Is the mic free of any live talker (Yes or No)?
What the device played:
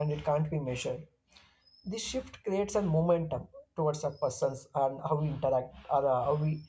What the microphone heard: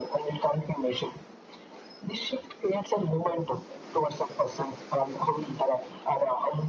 Yes